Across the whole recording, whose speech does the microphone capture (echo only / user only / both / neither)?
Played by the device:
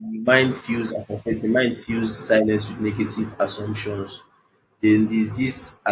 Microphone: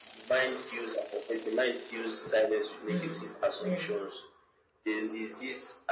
both